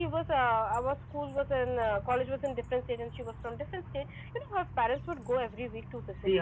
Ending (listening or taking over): taking over